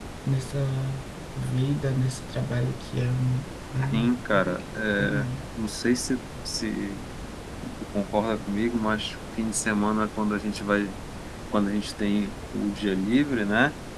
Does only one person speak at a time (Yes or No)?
No